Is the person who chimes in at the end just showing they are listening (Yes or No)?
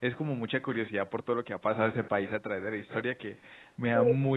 Yes